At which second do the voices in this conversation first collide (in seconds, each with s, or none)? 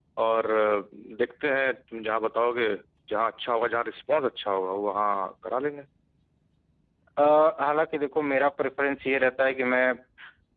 none